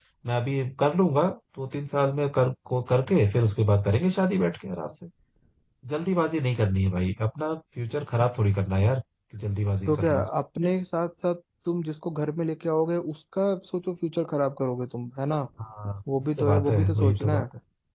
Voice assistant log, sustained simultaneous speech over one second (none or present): present